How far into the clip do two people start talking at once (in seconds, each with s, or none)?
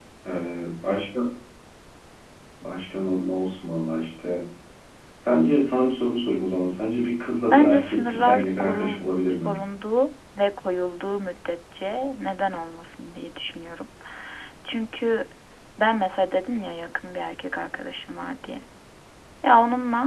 7.5 s